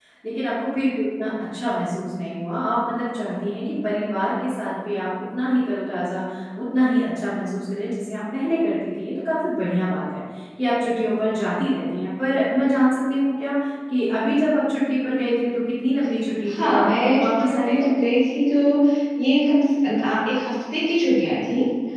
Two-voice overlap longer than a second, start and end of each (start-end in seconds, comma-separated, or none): 16.5-17.9